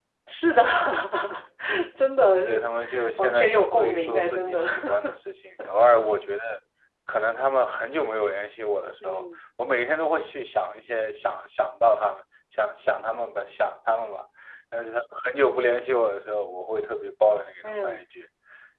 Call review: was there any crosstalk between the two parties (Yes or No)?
Yes